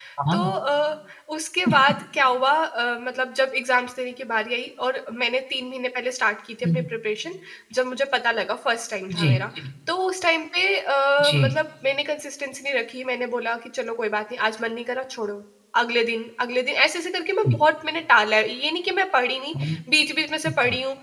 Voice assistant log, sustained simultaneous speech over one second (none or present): none